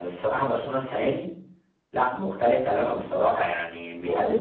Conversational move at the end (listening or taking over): listening